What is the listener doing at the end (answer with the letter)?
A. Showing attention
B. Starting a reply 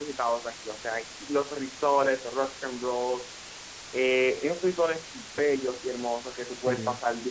A